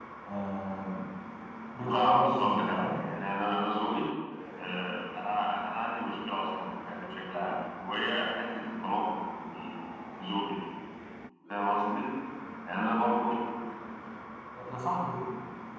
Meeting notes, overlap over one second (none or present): present